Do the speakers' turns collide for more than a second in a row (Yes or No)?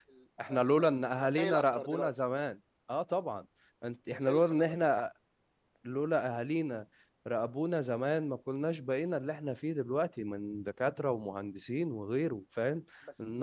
Yes